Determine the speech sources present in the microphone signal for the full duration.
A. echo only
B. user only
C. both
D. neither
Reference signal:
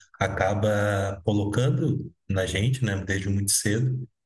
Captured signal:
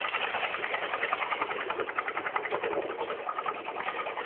D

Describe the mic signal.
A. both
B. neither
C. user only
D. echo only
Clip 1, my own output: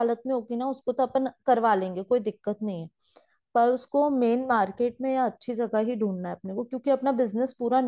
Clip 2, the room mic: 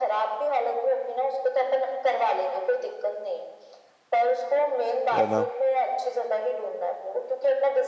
A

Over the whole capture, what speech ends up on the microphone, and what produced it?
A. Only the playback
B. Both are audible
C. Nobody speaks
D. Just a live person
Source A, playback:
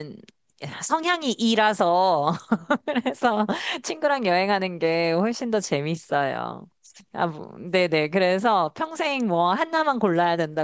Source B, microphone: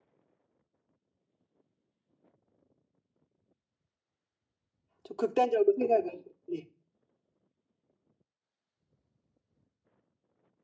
D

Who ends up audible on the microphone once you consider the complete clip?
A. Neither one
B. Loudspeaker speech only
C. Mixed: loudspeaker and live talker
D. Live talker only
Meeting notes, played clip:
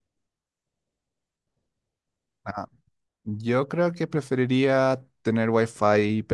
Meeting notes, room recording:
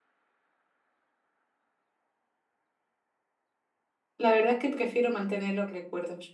D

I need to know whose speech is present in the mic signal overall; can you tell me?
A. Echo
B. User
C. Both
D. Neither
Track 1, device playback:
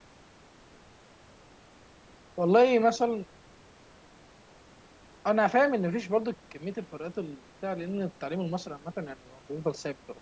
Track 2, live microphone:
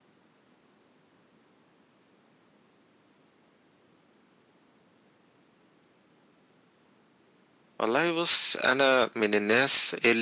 B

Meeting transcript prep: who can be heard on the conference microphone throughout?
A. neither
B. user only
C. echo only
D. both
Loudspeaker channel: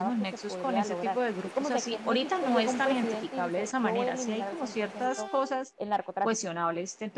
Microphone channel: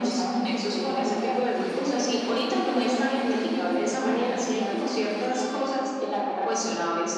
C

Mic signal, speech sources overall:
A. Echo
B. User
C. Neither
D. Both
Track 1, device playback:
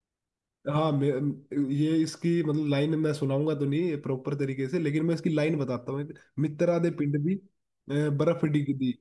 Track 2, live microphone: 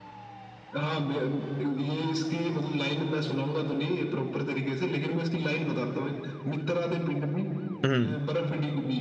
D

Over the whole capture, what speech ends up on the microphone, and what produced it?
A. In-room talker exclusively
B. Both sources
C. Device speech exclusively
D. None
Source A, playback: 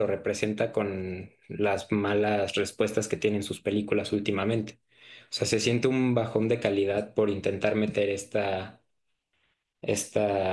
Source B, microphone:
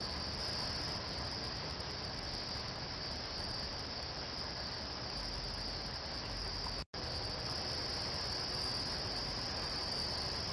D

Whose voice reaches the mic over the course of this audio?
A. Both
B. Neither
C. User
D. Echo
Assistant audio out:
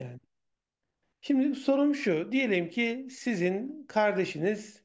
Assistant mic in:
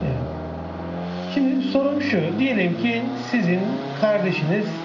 D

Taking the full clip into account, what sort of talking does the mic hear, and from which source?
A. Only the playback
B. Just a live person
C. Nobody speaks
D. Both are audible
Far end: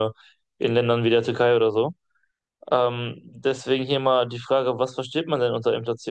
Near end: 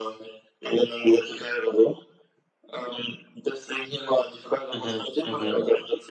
D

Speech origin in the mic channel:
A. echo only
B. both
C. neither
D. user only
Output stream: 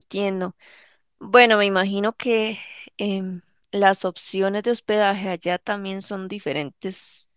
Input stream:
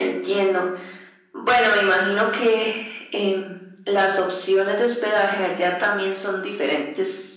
A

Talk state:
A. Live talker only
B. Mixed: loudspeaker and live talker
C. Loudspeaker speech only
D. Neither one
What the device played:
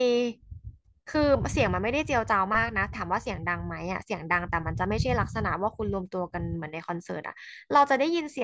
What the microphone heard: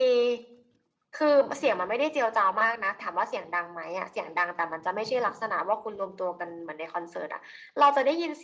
C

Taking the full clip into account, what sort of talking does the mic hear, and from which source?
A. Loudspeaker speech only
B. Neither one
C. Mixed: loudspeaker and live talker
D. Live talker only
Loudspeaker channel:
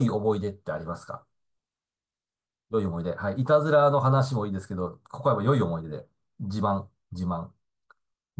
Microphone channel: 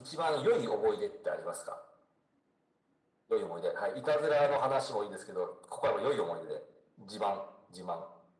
A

